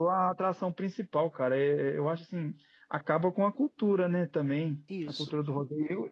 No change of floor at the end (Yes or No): Yes